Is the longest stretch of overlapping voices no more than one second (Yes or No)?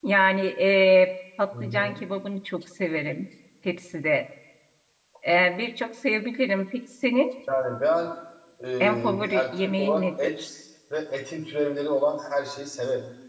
No